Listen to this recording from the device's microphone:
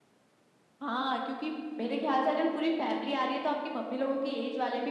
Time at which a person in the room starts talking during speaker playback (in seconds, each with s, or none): none